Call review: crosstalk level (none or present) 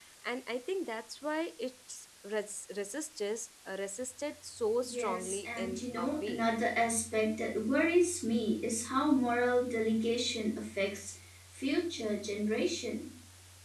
present